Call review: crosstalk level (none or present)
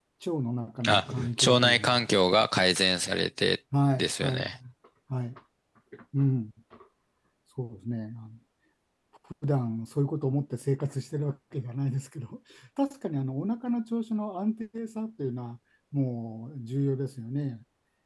present